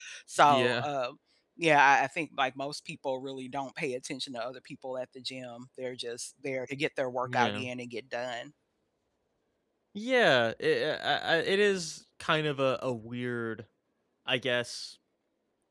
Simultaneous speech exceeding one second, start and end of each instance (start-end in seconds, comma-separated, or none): none